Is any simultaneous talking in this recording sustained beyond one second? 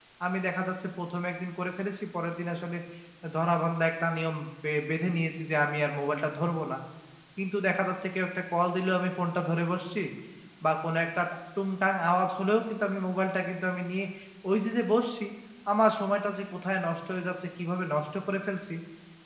No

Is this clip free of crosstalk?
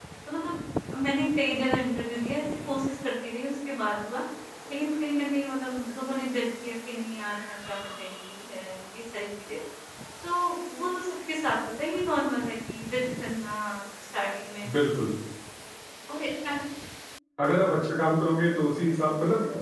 Yes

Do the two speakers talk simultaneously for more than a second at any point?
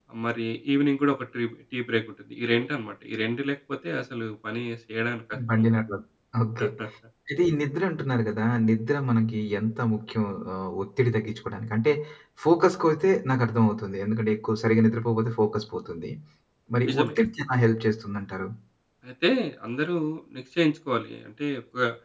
No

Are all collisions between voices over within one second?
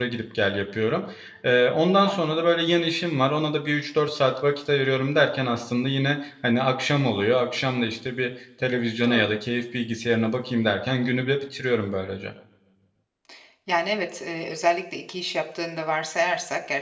Yes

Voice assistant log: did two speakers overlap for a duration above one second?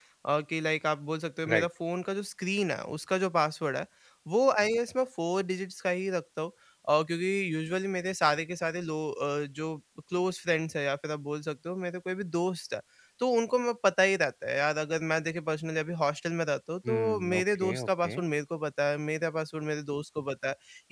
Yes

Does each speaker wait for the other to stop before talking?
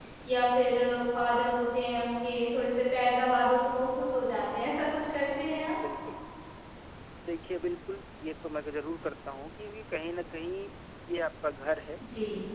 Yes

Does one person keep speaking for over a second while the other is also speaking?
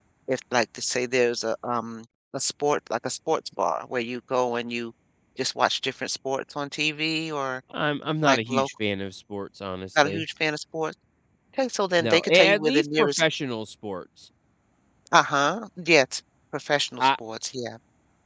Yes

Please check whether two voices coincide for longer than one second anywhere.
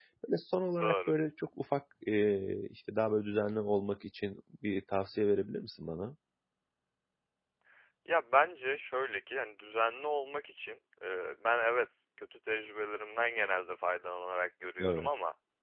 No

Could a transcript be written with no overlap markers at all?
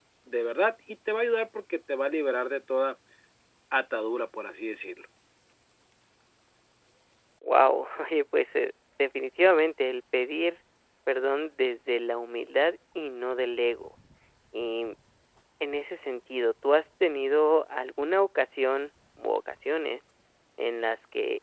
Yes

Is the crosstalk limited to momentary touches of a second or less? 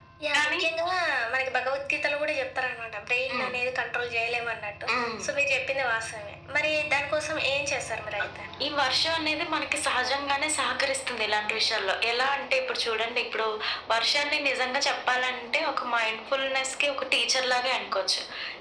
Yes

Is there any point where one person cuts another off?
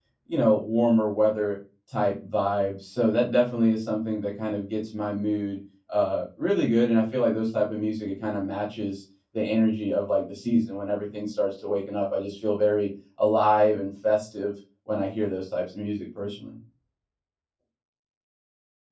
No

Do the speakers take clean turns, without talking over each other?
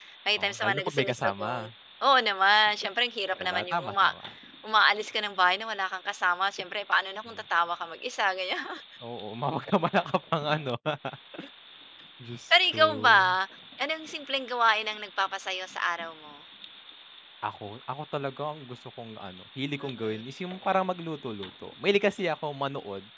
No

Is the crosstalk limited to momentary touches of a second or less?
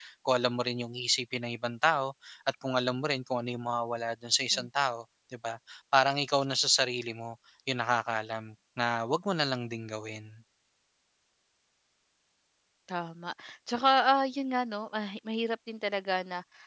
Yes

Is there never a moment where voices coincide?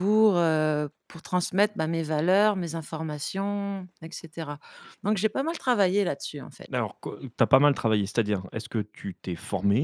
Yes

